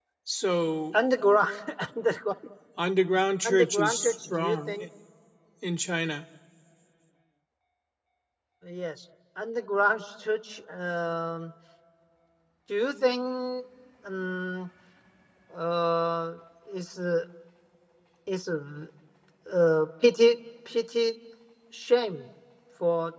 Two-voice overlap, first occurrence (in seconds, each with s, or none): 3.4 s